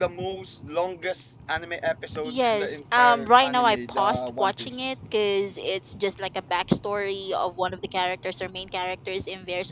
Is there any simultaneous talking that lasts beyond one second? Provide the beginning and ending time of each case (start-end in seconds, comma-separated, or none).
2.2-4.8